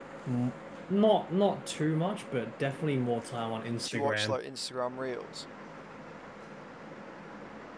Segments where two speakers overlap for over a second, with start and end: none

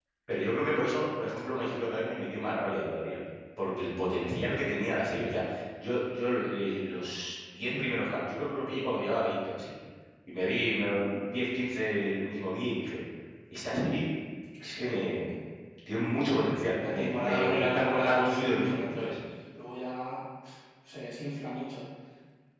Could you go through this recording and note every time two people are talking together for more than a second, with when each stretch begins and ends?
16.9-19.1

